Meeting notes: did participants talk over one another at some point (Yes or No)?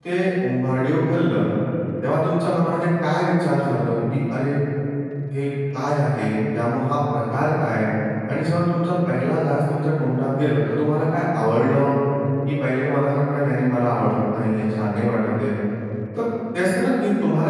No